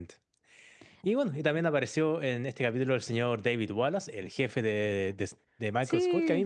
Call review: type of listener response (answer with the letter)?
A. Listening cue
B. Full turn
A